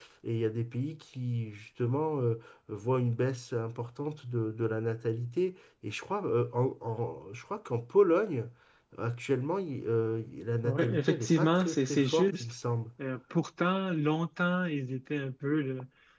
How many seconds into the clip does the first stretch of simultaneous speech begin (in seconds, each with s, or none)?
10.6 s